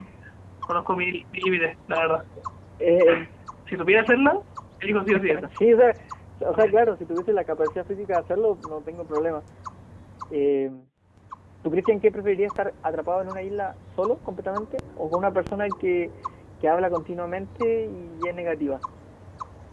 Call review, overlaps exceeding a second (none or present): none